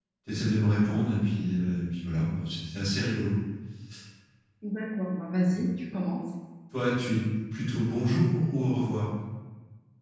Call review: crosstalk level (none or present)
none